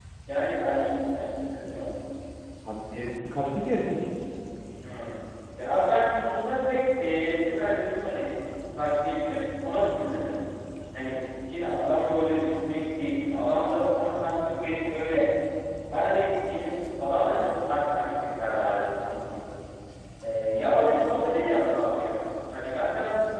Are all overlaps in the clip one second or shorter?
Yes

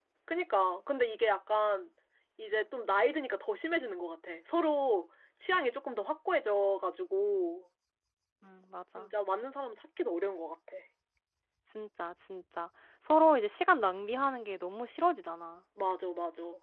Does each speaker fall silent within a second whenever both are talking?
Yes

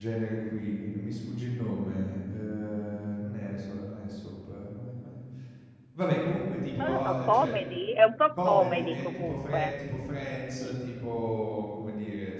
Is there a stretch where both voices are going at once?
Yes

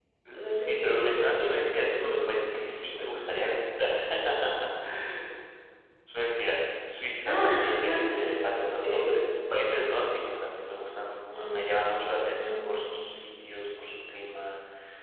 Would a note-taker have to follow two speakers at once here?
Yes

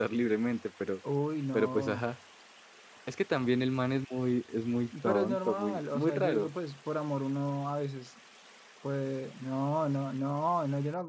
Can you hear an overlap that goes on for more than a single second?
Yes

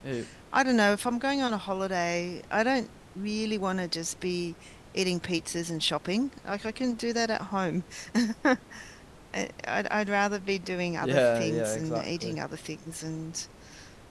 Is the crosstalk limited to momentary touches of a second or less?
No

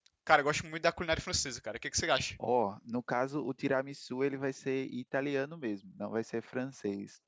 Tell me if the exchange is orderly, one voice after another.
Yes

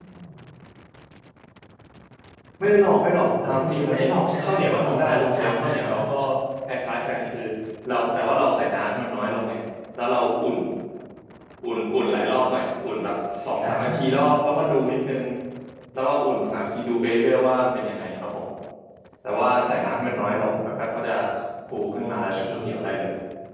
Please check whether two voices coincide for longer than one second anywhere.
Yes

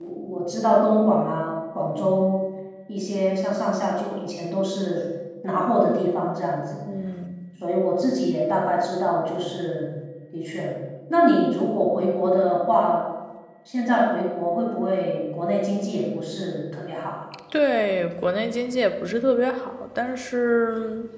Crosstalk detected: No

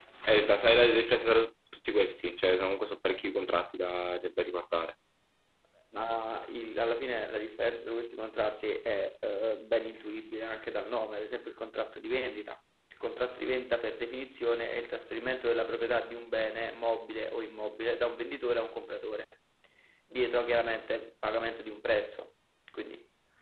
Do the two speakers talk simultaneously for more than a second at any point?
No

